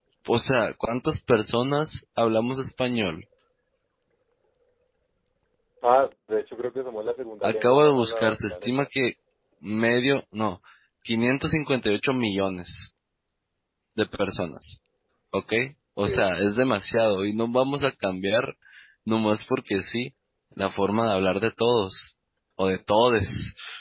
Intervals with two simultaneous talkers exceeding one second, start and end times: 7.4-8.8

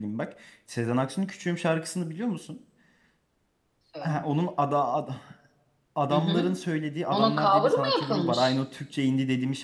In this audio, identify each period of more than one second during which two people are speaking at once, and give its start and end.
7.1-8.5

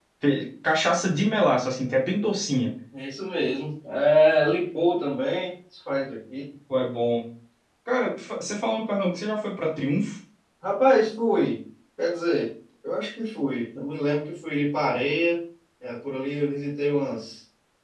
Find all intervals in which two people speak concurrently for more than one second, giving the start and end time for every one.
none

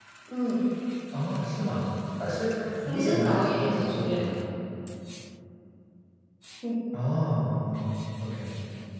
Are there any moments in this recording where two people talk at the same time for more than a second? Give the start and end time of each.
2.8-4.3

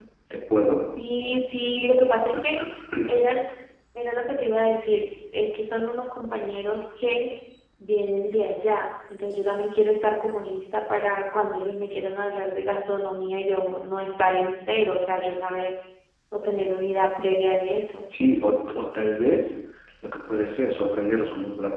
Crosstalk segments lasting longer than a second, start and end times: none

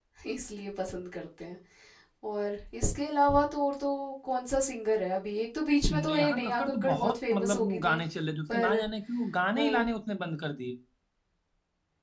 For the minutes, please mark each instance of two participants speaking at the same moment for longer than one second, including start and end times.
5.9-8.0

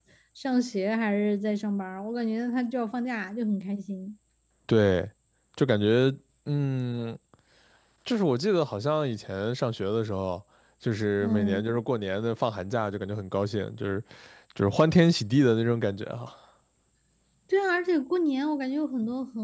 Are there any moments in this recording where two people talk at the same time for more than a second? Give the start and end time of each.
none

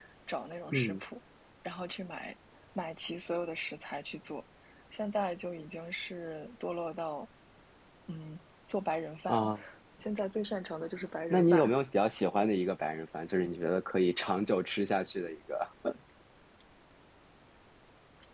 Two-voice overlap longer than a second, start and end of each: none

